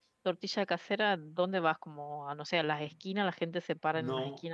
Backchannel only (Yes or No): No